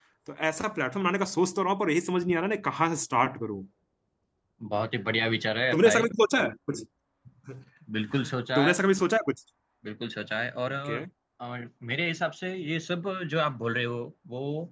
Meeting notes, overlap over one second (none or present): none